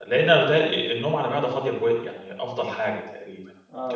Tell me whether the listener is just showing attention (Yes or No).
Yes